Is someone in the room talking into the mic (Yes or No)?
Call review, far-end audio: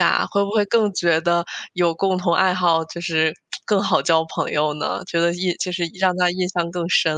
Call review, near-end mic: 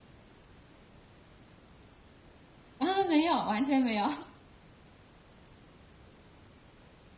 Yes